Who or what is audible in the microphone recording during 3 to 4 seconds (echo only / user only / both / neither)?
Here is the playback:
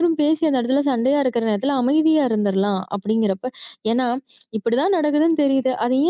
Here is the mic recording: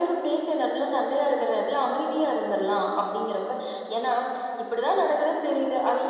echo only